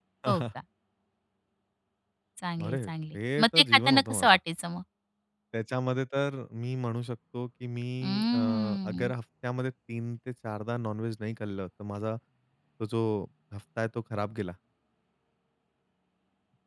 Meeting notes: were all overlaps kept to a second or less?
No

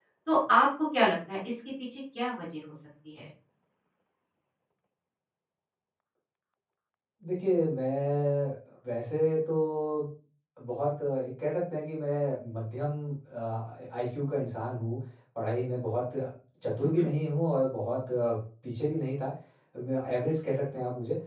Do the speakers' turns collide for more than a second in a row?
No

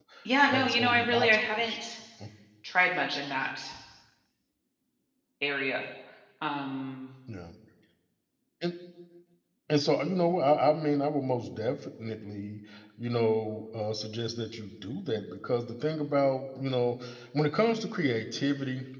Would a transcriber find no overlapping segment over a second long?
No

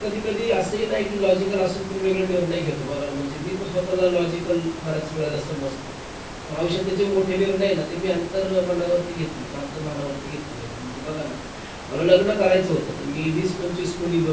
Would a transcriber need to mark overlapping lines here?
No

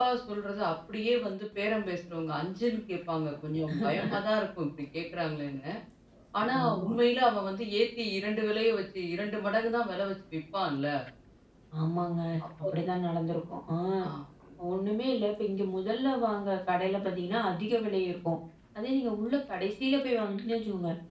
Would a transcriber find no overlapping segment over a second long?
Yes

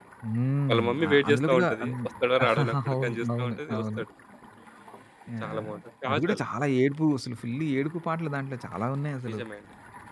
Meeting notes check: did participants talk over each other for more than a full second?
Yes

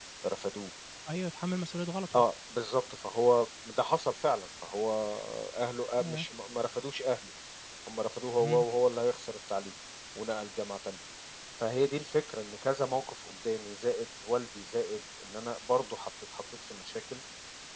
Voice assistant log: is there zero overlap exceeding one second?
Yes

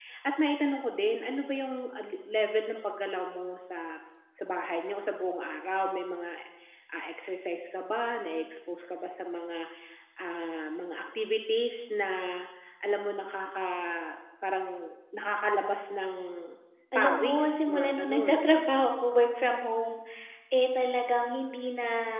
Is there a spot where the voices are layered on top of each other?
Yes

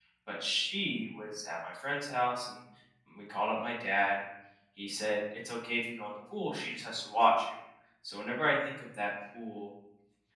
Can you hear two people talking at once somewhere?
No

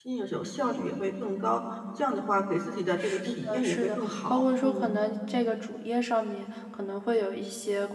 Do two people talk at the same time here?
Yes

